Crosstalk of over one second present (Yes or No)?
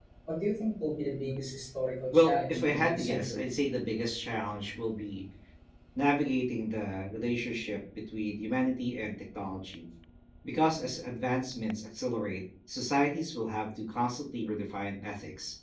Yes